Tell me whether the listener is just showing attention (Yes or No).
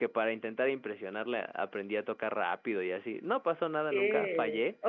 No